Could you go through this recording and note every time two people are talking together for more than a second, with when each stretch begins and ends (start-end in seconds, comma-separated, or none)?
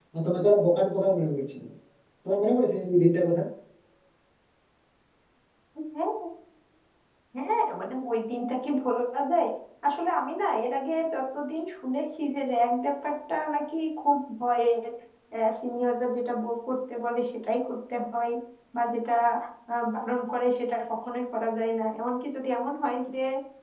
none